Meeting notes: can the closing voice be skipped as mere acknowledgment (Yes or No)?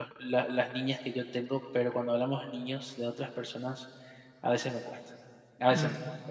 Yes